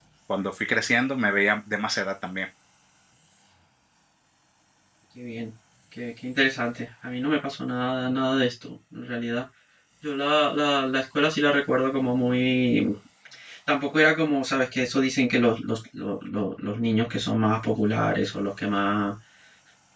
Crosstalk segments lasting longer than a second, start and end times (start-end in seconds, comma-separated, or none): none